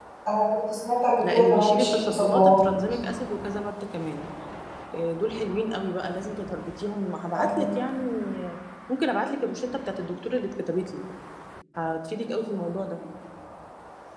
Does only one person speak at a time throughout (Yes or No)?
No